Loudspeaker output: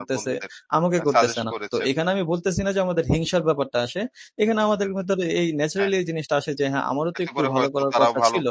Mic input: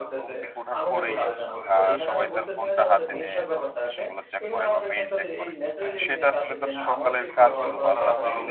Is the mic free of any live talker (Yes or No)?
No